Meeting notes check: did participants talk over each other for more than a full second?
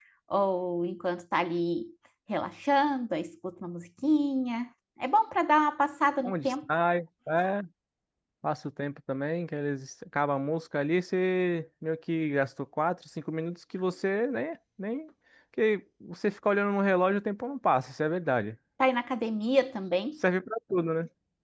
No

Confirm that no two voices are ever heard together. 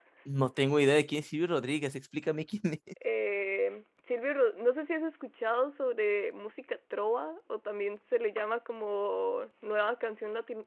Yes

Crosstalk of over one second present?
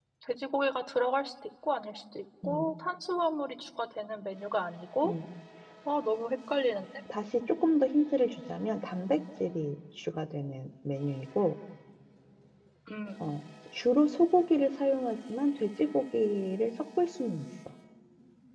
No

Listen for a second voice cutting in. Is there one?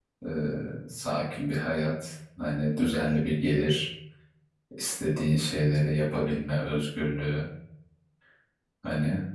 No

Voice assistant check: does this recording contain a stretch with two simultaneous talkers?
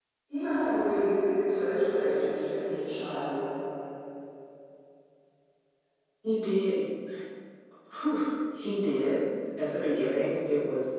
No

